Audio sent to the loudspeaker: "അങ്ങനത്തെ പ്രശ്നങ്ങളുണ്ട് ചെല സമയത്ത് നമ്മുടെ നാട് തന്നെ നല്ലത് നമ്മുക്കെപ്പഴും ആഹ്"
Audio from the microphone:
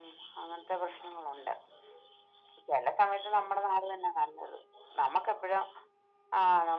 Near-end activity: none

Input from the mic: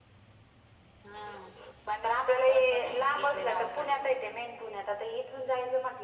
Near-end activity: none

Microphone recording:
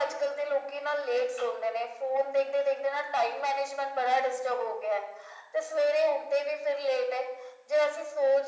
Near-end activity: none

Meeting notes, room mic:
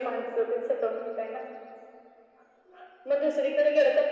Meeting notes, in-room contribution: none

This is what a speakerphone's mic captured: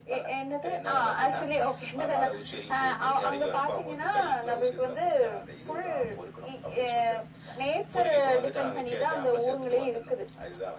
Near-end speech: none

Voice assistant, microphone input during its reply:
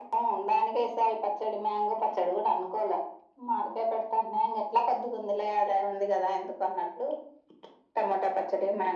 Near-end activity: none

